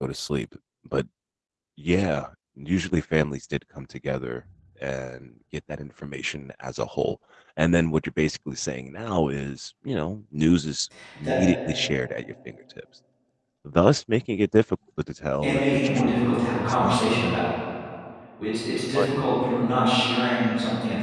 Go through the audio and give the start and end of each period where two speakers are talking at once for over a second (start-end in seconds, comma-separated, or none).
15.4-17.0